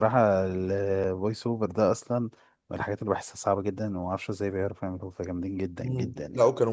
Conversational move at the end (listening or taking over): taking over